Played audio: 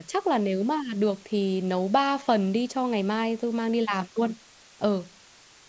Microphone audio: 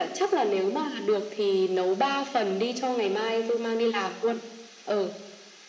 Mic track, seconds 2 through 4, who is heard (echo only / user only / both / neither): echo only